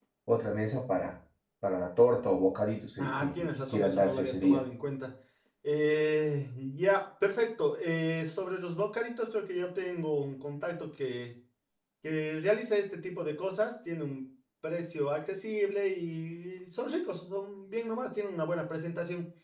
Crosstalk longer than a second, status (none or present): present